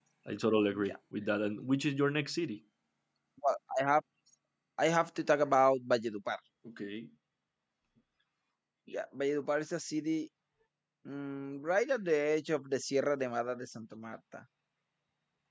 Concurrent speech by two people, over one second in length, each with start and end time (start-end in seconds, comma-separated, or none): none